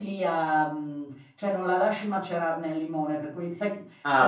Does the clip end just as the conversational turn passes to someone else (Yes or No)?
No